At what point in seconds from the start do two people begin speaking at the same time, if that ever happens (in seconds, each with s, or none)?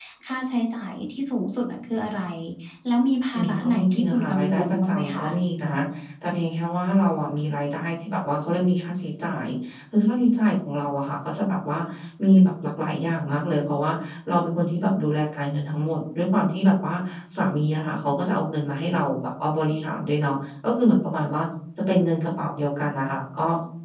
3.4 s